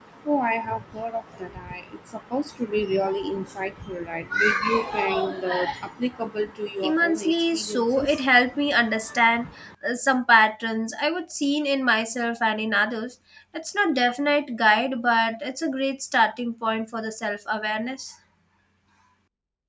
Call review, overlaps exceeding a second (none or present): present